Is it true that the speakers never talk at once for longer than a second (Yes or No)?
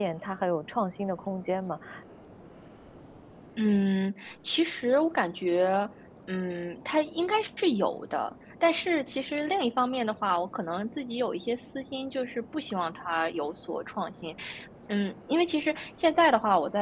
Yes